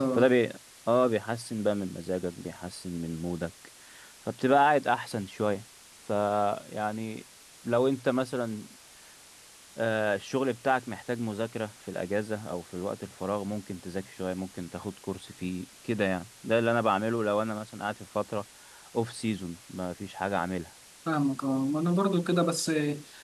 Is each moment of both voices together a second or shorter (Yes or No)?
Yes